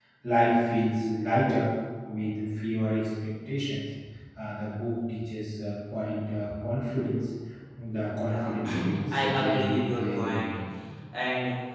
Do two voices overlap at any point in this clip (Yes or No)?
Yes